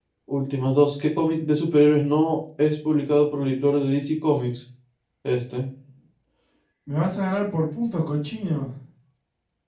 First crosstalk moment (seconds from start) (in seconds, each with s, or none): none